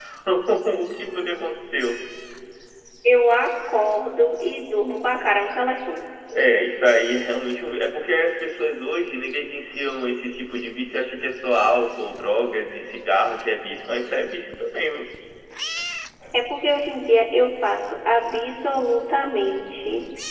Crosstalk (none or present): none